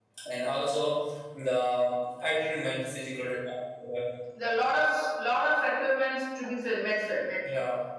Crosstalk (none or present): none